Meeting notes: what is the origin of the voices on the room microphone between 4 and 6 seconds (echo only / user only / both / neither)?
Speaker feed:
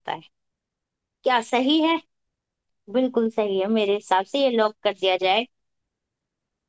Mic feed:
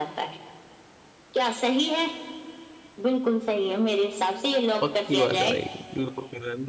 both